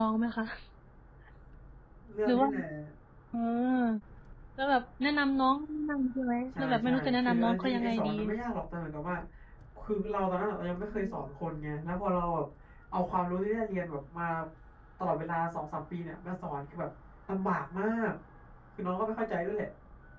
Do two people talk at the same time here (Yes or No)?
Yes